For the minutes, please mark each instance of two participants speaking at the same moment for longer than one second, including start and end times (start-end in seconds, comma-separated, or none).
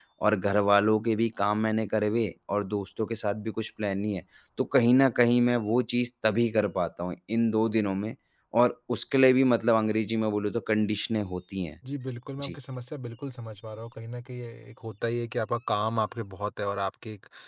none